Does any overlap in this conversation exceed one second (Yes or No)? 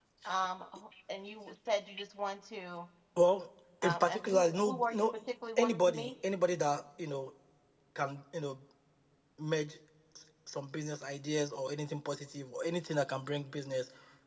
Yes